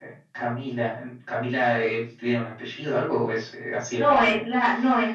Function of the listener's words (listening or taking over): taking over